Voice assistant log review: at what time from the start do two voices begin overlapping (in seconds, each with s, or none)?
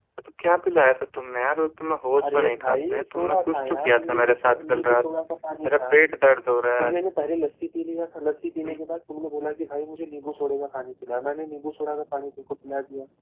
2.2 s